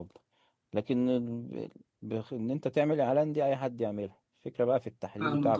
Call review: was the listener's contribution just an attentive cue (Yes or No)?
Yes